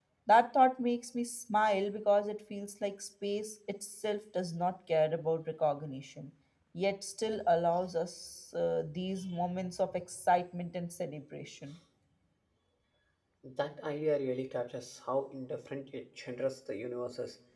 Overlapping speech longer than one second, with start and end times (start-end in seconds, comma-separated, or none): none